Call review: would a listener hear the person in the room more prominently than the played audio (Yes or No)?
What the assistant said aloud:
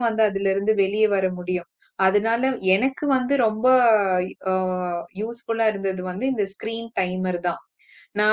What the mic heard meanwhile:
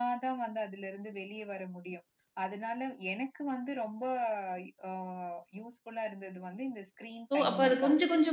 Yes